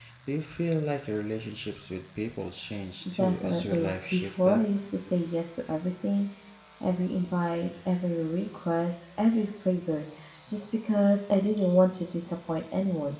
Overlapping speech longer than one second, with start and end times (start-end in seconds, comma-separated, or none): 3.1-4.6